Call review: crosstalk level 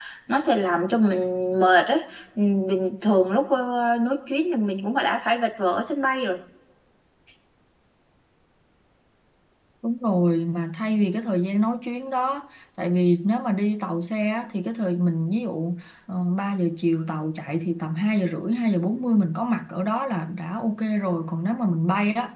none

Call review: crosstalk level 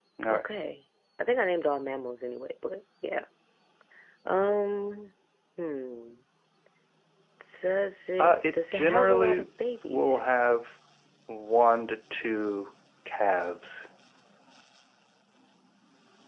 present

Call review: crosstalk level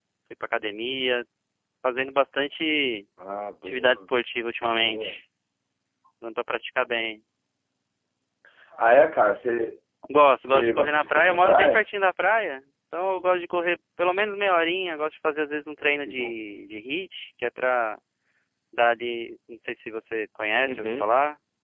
present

